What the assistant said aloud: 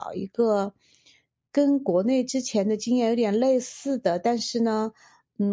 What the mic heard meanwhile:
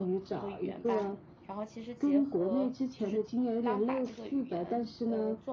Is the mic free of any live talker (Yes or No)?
No